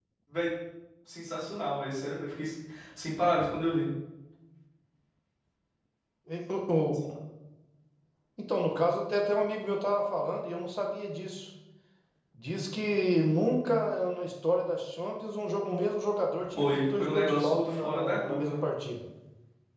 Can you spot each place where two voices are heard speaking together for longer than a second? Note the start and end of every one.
16.6-18.6

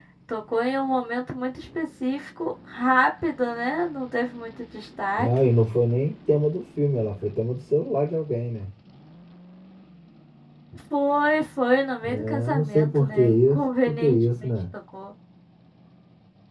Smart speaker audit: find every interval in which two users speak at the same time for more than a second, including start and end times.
12.0-14.5

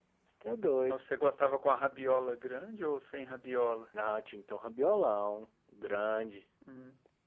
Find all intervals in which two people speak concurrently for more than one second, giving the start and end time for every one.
none

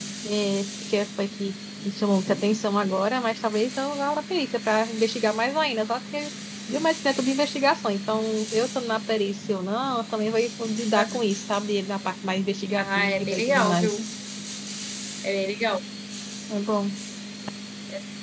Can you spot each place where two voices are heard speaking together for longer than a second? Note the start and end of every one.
12.8-14.0

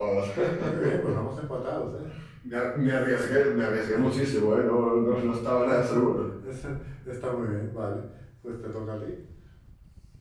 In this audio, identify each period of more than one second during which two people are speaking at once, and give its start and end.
none

